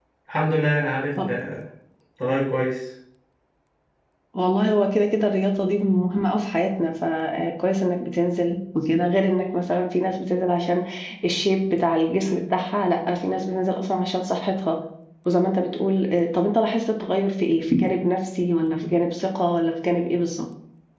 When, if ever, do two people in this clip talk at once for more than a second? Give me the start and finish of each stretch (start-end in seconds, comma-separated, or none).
none